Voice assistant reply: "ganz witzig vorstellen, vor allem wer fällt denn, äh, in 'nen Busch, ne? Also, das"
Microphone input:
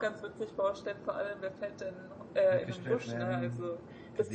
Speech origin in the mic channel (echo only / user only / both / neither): both